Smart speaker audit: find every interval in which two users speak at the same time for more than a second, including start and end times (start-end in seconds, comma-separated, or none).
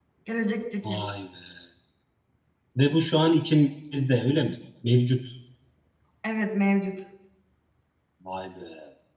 none